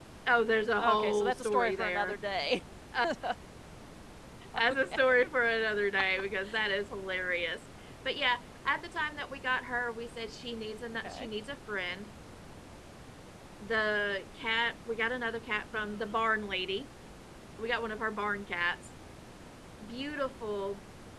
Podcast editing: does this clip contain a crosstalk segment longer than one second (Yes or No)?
Yes